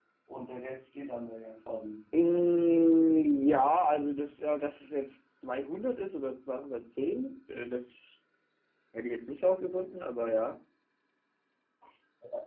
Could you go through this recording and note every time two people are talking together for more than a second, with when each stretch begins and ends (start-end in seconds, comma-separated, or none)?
none